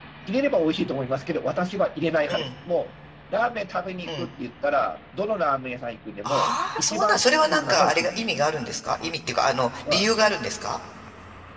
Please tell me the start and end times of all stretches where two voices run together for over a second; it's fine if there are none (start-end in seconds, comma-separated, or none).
6.2-8.4